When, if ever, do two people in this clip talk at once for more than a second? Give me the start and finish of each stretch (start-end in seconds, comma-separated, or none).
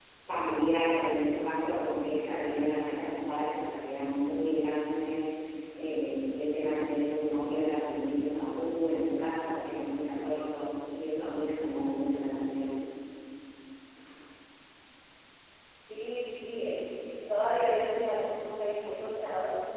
none